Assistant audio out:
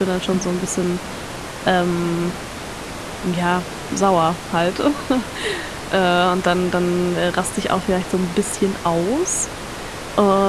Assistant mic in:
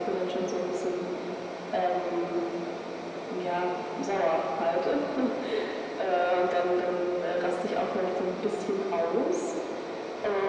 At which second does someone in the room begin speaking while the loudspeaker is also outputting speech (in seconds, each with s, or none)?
none